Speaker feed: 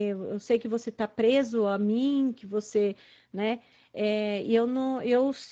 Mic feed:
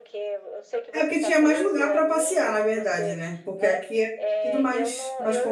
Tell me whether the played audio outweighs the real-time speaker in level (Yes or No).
No